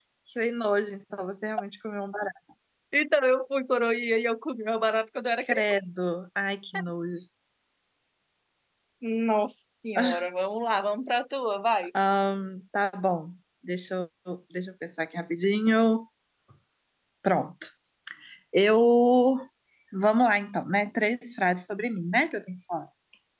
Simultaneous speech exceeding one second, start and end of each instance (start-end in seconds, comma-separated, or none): none